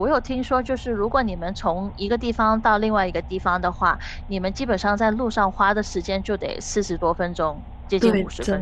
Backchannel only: No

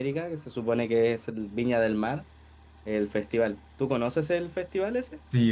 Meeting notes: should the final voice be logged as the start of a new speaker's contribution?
Yes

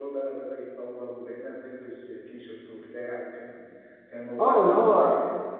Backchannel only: No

